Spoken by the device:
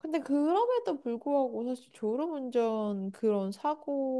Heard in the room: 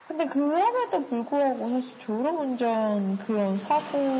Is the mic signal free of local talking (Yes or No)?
Yes